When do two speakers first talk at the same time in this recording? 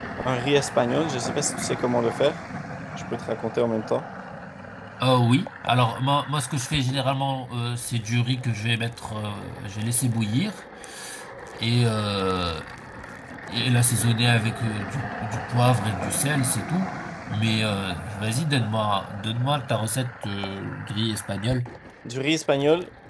none

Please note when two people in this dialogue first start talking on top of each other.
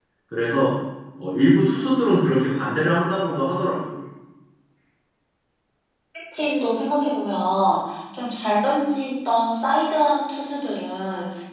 none

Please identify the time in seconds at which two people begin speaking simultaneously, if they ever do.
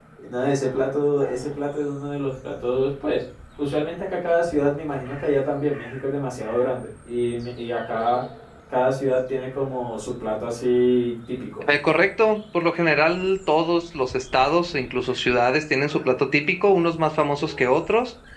none

